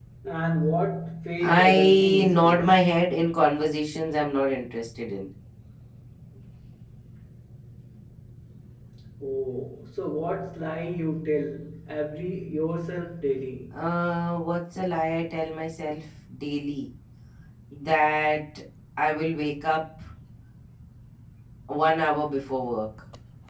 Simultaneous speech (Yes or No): Yes